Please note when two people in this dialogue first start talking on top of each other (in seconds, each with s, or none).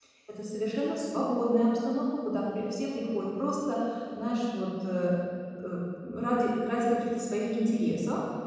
none